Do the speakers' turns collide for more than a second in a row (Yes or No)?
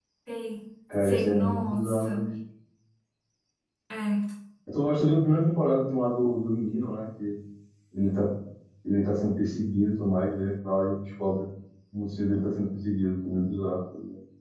Yes